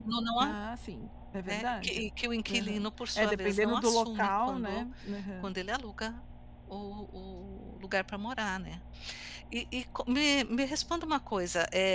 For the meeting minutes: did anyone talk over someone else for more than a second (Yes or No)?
Yes